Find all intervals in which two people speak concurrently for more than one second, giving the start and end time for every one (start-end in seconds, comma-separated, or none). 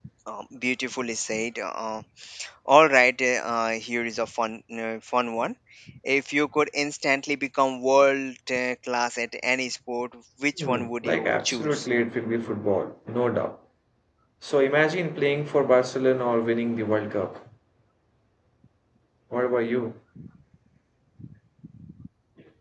10.6-11.9